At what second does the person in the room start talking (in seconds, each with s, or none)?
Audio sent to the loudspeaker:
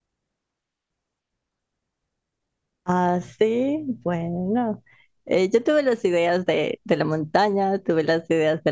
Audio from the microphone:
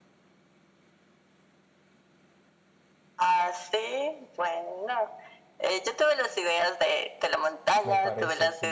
7.8 s